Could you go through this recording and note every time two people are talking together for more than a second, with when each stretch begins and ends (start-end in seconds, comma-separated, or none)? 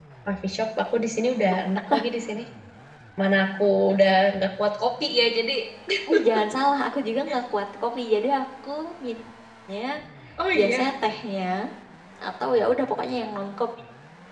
none